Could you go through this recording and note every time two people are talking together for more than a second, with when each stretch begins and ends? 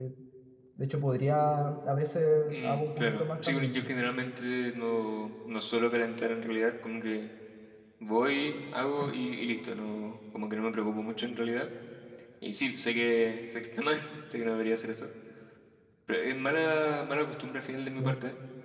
2.4-3.9

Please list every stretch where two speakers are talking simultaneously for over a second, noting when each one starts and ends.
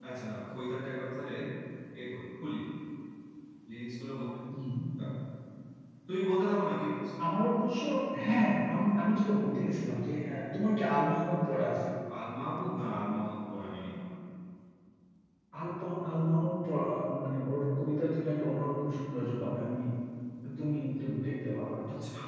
none

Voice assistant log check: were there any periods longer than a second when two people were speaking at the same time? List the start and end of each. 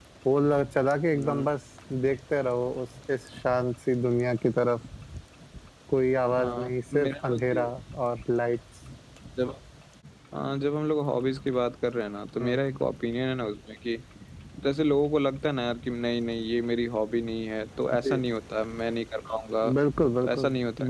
6.4-7.7

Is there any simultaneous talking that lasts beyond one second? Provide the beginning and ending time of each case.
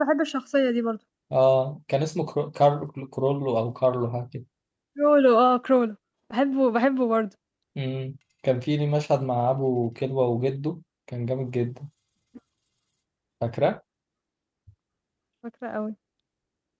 none

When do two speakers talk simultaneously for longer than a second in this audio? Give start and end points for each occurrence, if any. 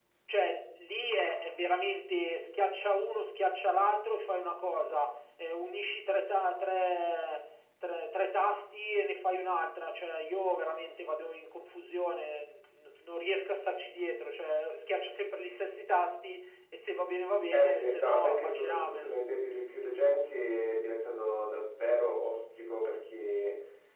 17.5-19.1

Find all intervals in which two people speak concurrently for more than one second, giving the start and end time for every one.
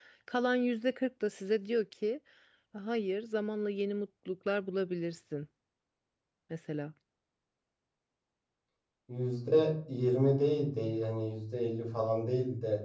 none

